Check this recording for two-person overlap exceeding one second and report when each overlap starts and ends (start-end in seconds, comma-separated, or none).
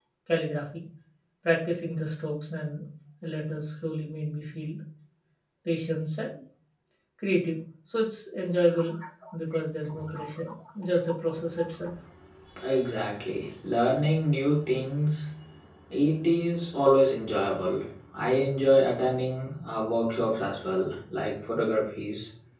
none